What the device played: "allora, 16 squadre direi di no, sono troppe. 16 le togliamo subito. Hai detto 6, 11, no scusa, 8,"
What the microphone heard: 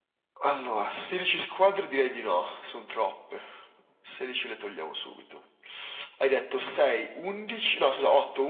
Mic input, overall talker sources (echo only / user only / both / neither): echo only